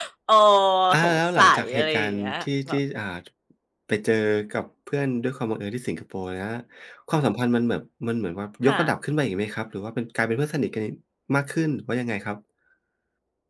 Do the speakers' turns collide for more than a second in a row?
Yes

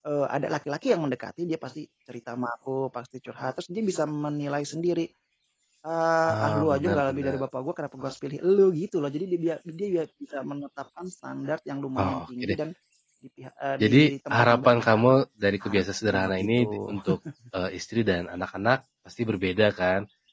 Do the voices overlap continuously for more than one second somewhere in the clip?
Yes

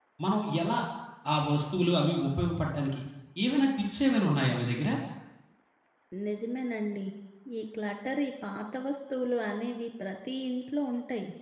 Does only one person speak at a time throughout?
Yes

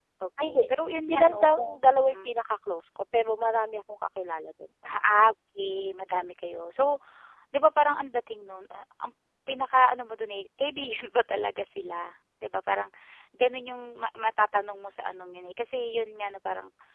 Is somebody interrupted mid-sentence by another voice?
Yes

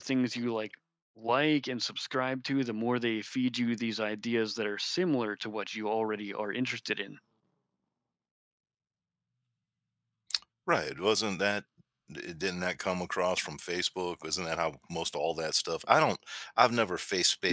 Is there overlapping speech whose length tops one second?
No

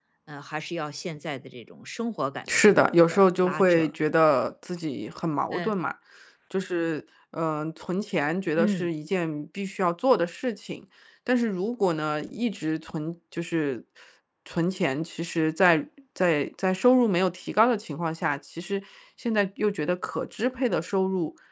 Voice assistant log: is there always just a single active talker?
No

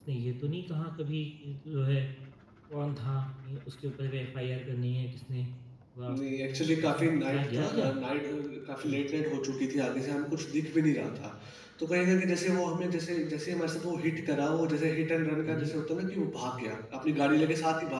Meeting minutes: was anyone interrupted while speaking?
Yes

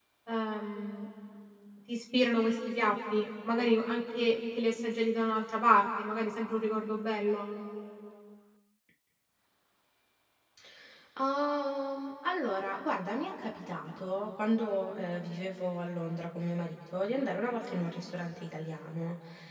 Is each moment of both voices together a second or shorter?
Yes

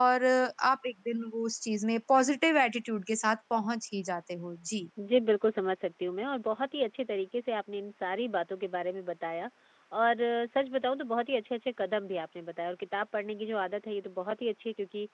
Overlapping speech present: No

